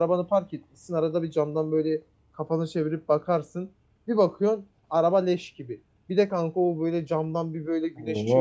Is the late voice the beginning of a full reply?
No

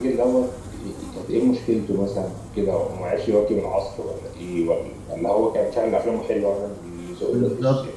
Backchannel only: No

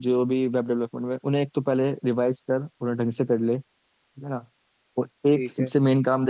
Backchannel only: Yes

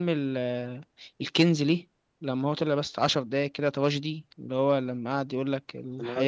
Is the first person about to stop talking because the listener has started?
No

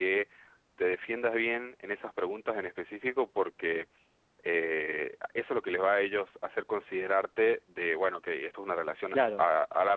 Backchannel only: No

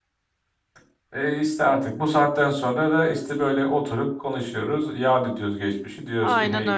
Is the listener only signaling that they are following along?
No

